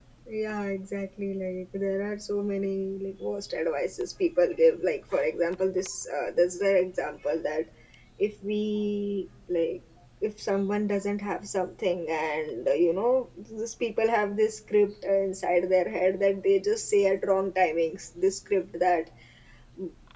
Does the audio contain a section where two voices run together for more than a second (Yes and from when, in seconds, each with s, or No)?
No